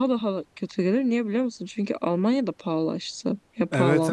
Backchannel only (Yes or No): No